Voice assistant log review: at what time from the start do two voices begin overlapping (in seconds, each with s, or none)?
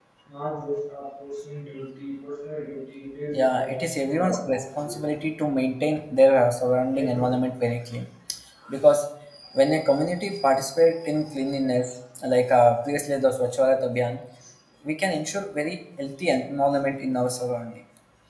3.5 s